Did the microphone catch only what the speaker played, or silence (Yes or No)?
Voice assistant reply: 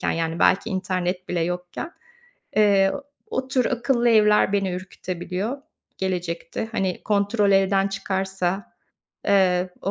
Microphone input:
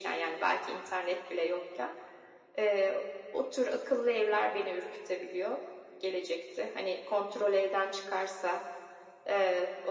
Yes